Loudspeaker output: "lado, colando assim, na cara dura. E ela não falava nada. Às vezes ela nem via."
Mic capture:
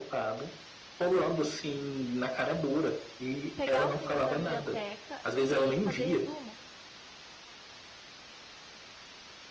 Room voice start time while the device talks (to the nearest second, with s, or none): 4 s